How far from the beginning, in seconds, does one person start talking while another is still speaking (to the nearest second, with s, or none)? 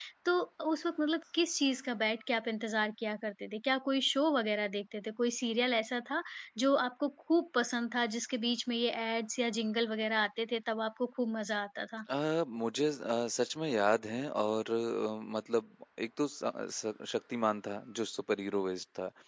none